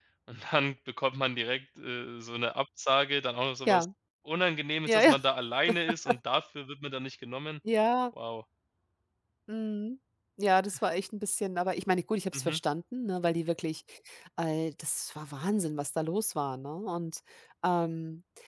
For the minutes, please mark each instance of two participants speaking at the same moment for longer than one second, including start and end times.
none

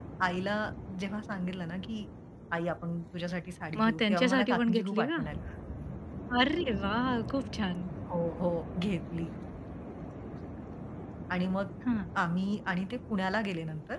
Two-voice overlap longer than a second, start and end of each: 3.8-5.2

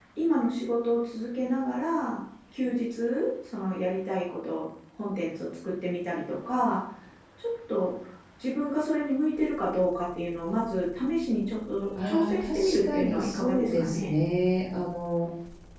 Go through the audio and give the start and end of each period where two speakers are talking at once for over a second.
12.1-14.2

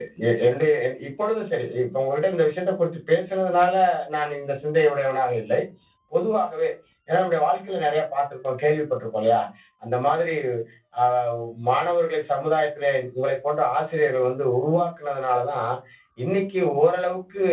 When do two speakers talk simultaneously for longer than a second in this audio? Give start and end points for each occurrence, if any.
none

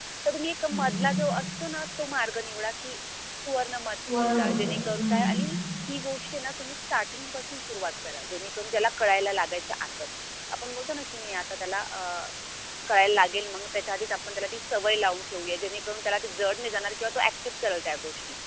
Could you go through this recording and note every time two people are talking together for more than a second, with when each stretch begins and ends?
4.1-5.6

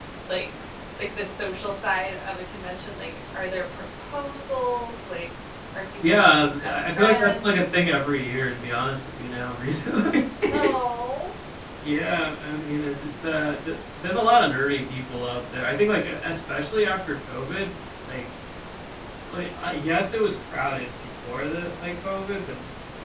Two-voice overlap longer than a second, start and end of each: 6.1-7.6

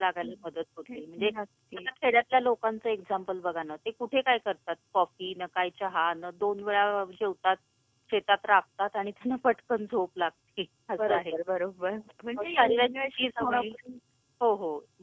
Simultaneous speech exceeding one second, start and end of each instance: 12.4-13.7

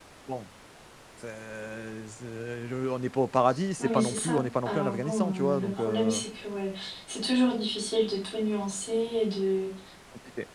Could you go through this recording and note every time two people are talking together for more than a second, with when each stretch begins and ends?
3.8-6.2

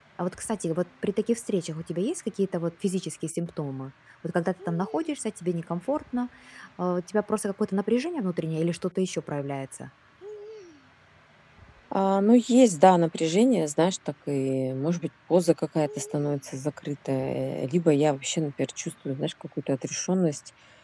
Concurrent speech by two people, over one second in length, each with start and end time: none

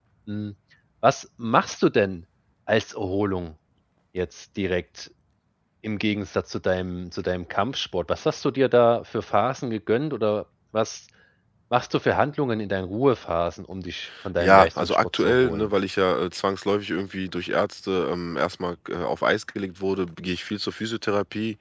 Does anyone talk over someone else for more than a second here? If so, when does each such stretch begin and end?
14.4-15.7

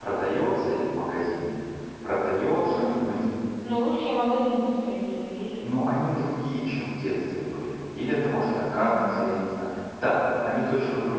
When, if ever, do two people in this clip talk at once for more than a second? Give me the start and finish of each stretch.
none

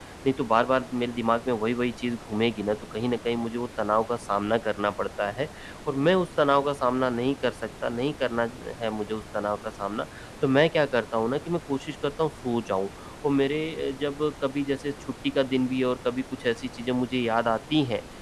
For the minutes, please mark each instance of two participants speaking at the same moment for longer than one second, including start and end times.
none

